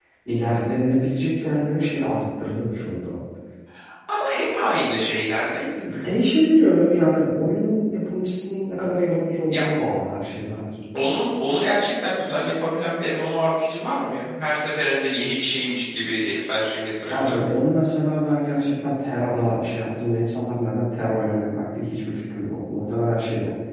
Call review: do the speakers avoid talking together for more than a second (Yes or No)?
Yes